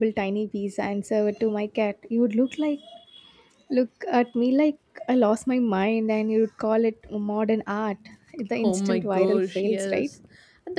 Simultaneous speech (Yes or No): Yes